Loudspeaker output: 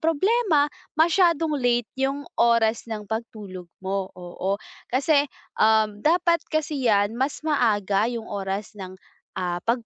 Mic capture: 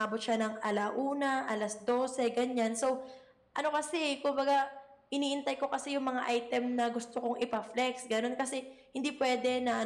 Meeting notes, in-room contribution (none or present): present